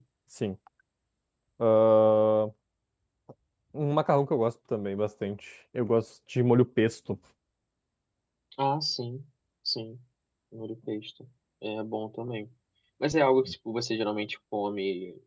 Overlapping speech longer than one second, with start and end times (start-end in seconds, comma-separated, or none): none